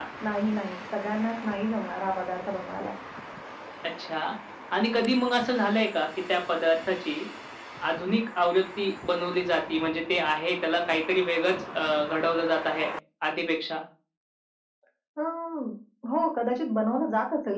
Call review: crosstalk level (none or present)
none